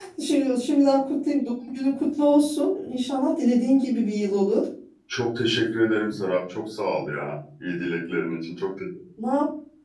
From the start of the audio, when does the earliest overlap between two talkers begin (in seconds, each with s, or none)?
none